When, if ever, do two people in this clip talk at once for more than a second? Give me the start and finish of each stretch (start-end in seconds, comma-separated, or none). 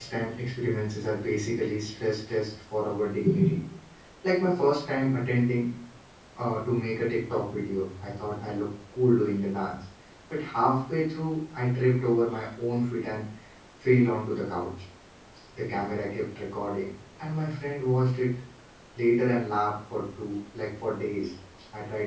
none